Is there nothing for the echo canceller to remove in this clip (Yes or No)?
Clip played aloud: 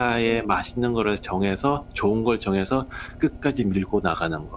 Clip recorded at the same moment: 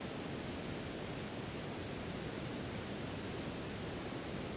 Yes